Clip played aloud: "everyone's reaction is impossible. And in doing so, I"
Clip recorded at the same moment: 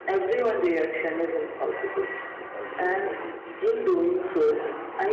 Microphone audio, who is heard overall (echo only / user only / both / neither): both